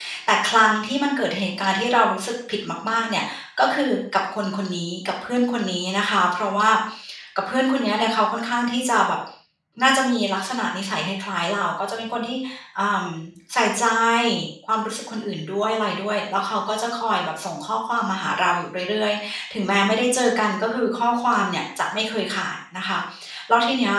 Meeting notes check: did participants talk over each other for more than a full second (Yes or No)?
No